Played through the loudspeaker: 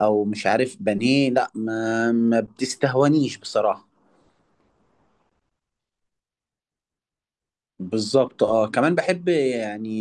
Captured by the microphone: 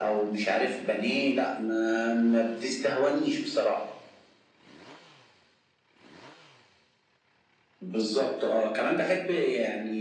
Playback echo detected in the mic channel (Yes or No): Yes